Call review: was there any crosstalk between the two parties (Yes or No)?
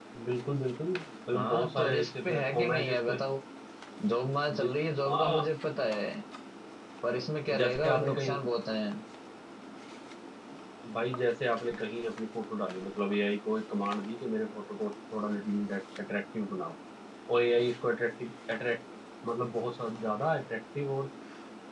Yes